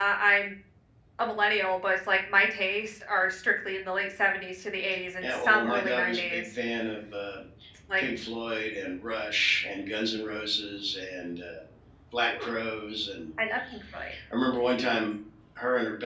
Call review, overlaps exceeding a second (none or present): present